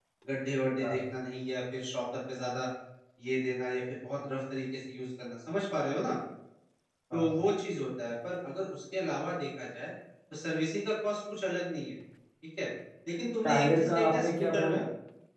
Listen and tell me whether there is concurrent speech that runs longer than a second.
Yes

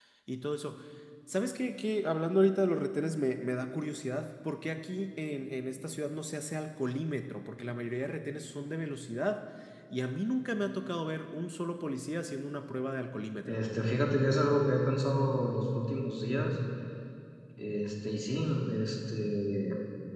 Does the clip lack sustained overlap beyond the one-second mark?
Yes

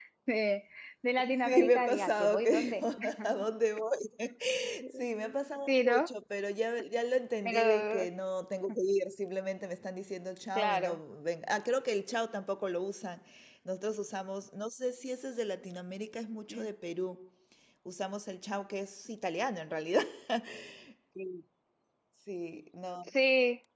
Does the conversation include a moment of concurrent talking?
Yes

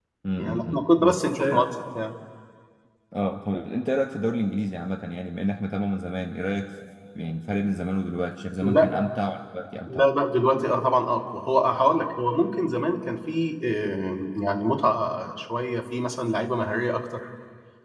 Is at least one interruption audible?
Yes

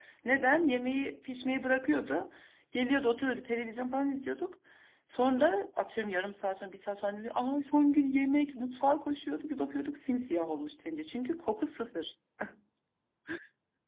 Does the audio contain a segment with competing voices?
No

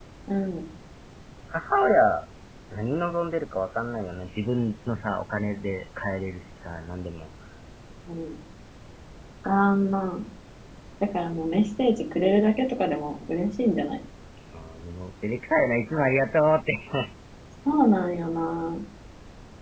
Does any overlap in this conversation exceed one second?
No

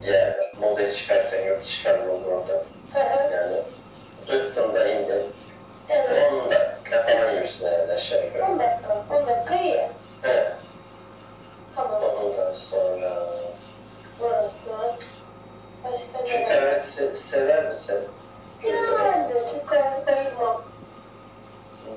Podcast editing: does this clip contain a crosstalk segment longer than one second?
No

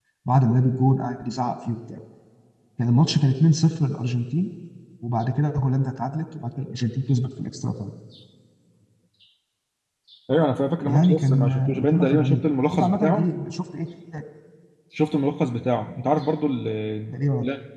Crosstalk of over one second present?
Yes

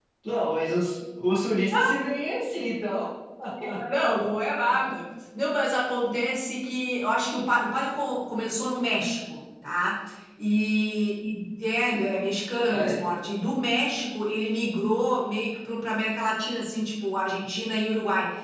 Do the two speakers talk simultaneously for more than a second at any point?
No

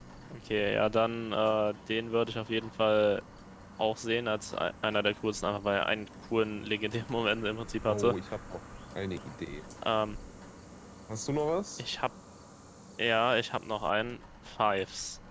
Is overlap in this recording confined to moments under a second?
Yes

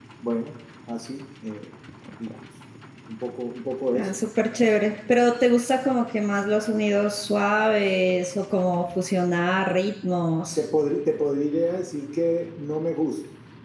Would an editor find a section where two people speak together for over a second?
No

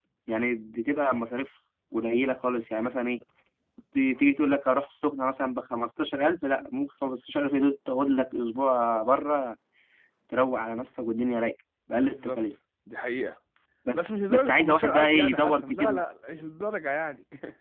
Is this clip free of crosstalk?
No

